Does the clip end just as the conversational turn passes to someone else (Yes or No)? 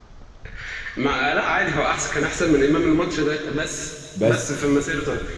No